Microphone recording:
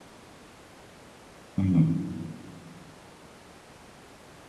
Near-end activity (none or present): present